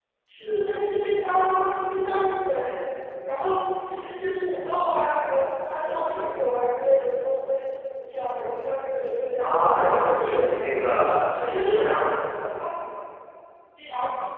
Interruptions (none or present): present